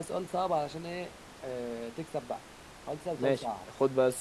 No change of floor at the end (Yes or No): No